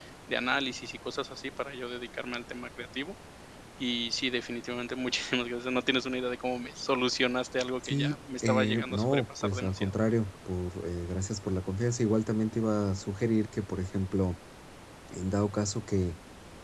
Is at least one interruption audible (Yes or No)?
Yes